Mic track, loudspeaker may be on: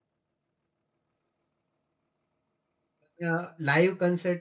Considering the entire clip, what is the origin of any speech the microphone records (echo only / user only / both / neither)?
user only